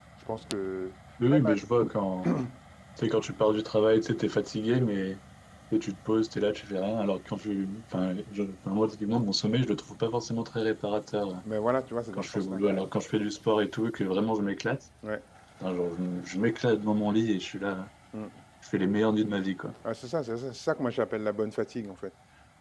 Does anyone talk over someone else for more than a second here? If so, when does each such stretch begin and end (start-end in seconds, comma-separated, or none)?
none